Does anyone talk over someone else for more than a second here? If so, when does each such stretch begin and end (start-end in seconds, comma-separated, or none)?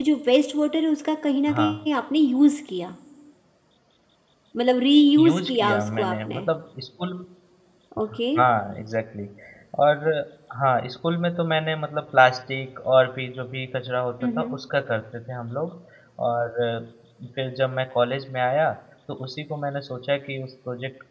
5.2-6.4